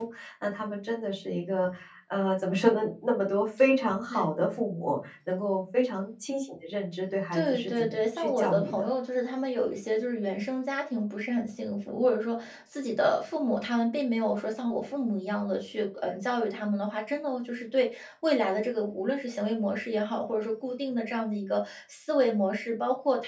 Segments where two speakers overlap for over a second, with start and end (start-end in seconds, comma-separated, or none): 7.3-8.8